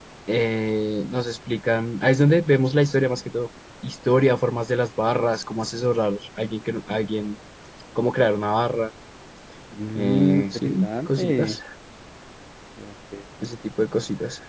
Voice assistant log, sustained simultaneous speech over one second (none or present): present